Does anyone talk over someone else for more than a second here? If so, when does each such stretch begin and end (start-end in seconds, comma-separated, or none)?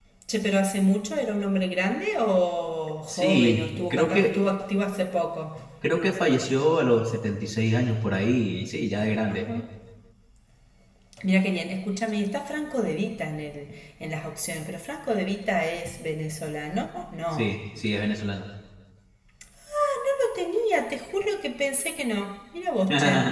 3.1-4.3